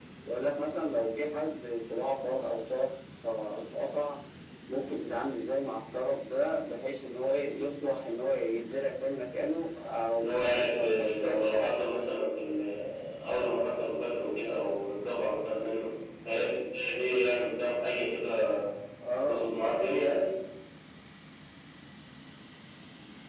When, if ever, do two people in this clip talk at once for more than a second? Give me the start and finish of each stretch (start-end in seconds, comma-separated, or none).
10.2-11.7